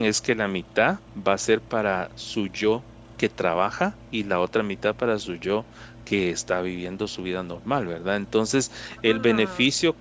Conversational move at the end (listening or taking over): listening